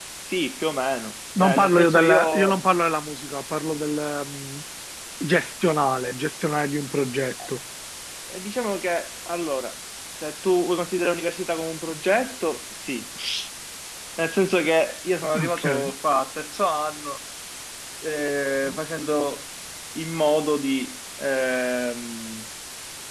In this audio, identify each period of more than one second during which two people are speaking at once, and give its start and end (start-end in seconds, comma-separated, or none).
1.4-2.6